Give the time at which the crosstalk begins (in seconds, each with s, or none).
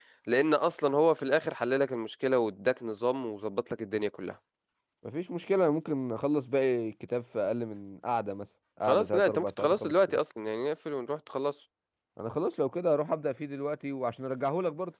8.8 s